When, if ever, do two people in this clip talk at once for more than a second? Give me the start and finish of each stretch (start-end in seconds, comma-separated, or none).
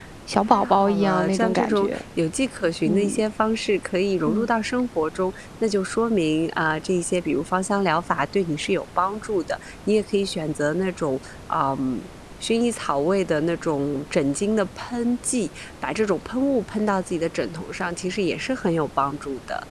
0.5-2.0